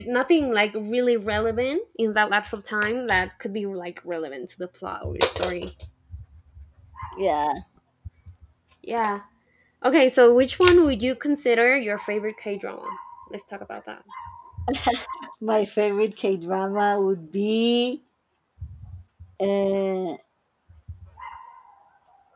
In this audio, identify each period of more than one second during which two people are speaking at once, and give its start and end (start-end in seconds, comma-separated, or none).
none